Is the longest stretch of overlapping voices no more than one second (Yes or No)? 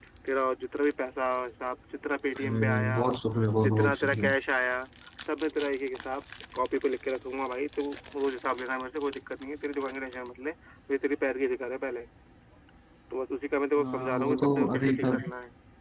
No